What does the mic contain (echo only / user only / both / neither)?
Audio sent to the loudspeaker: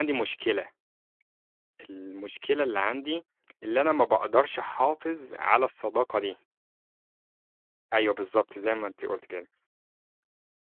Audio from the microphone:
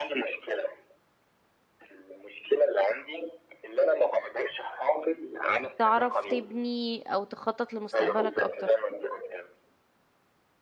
both